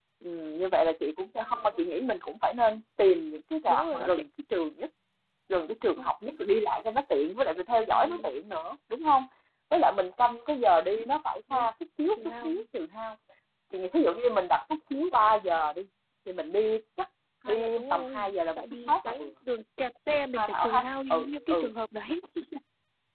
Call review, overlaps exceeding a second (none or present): present